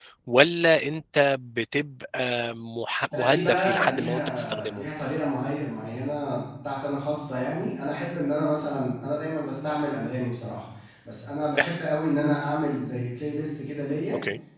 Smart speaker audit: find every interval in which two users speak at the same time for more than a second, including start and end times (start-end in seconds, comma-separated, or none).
3.1-4.8